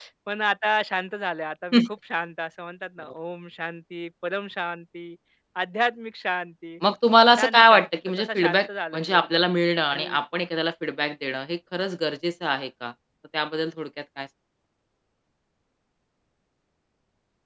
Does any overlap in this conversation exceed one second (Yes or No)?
Yes